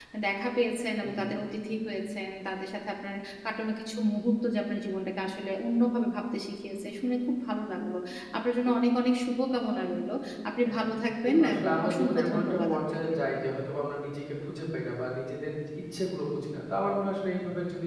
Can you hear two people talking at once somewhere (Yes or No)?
Yes